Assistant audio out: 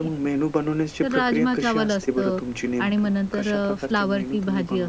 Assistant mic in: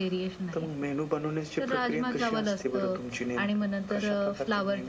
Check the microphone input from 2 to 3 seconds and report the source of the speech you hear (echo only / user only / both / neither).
echo only